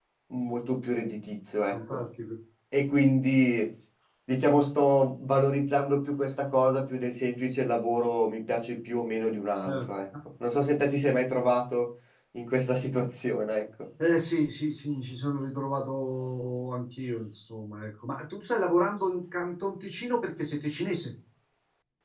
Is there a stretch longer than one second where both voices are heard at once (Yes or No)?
No